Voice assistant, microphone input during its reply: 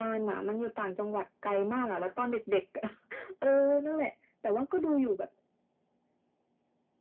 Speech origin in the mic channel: echo only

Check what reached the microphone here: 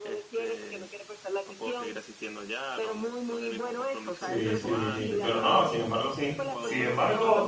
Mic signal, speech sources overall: both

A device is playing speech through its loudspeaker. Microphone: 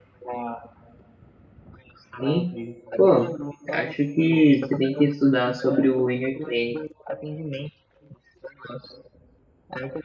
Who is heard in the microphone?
both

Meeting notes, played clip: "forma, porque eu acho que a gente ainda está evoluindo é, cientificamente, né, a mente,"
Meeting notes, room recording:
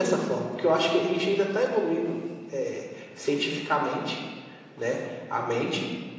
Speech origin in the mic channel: echo only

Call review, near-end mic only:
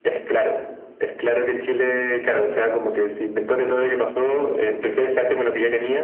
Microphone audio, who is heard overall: echo only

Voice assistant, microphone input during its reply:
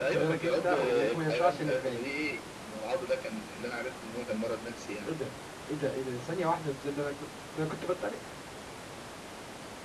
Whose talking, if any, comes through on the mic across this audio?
both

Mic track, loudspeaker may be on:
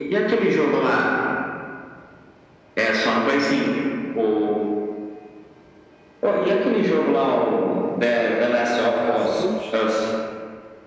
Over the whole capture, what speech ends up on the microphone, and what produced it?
both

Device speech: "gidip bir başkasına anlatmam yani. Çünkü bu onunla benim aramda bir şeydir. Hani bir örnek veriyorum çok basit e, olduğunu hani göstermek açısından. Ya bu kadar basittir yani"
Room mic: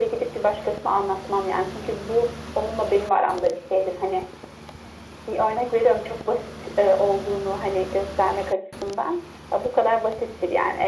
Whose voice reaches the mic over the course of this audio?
echo only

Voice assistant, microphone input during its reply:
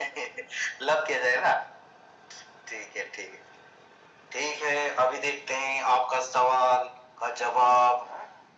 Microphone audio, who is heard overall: echo only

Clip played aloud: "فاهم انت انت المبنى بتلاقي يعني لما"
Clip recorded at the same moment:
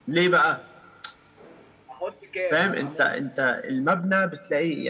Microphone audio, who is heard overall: both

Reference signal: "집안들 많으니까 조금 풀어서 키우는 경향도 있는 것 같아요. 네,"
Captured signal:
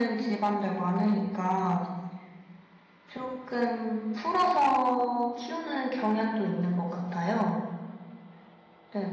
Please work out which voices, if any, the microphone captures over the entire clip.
echo only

